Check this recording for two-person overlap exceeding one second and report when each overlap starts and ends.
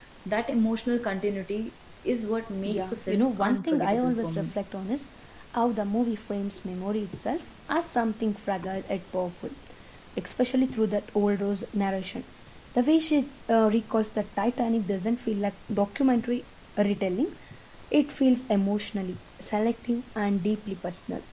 2.6-4.5

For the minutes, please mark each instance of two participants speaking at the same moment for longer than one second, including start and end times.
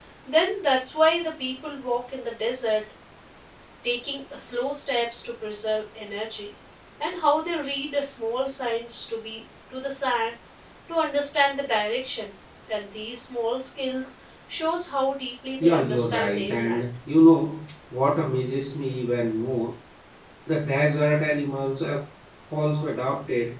15.6-16.9

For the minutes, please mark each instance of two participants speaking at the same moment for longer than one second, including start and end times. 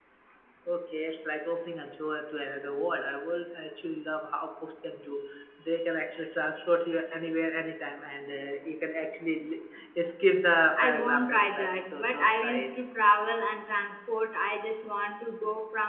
10.8-12.7

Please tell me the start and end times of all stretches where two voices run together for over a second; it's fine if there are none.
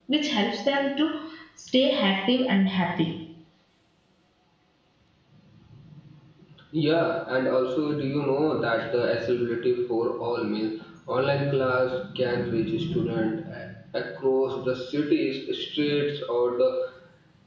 none

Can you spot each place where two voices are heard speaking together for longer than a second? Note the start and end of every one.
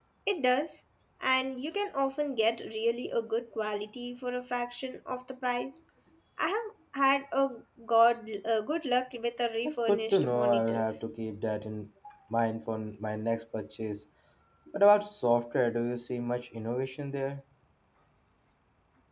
9.6-11.0

